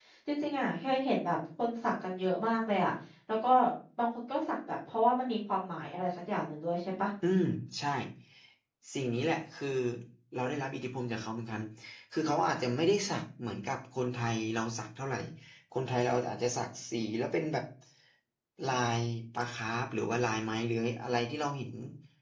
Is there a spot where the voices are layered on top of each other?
No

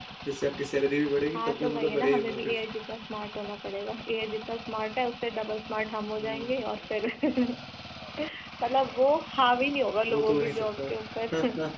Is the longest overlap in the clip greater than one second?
Yes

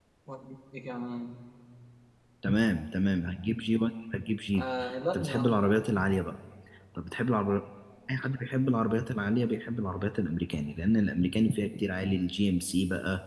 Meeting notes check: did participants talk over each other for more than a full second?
No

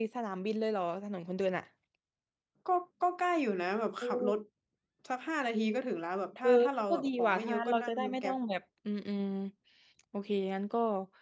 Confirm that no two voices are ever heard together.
No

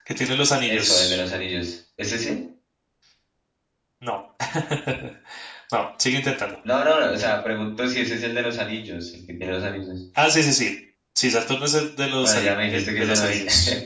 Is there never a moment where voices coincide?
No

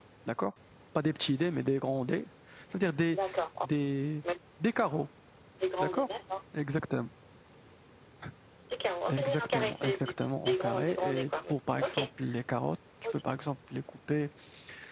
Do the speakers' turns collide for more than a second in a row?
Yes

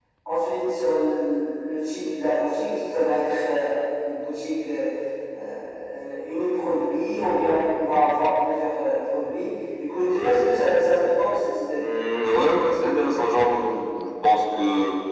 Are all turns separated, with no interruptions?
Yes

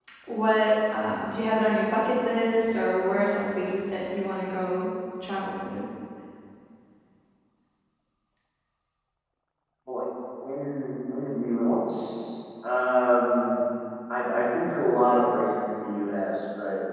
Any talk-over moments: No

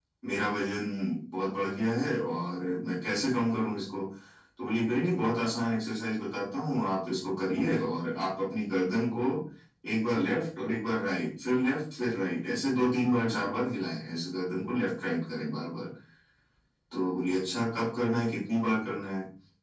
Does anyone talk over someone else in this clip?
No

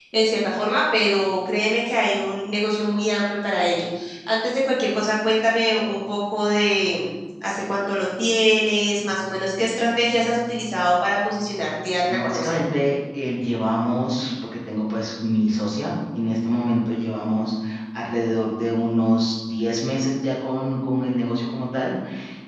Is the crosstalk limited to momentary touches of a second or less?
Yes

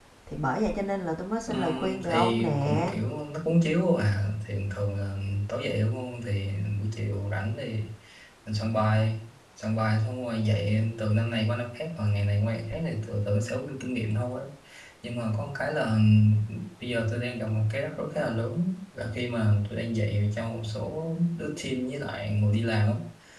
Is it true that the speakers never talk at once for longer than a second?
No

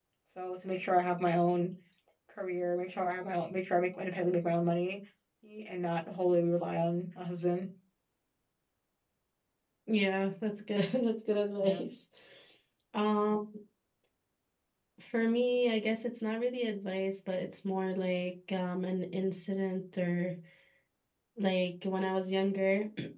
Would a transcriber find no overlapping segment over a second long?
Yes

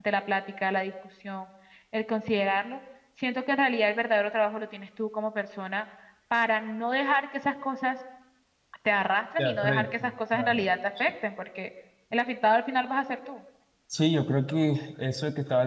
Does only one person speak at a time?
No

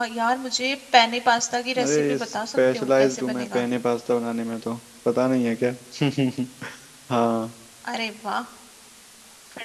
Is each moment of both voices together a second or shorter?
No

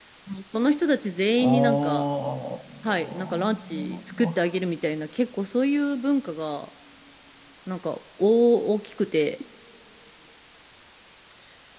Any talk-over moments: Yes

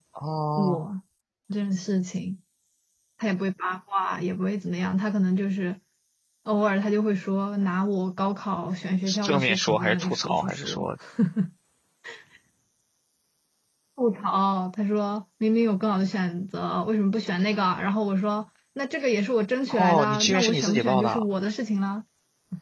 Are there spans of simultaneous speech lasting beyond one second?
Yes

